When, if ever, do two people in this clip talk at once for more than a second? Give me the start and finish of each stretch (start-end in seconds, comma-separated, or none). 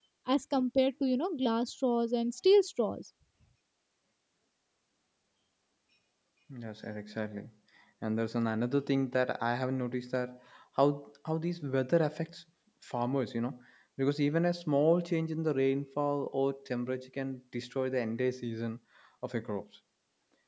none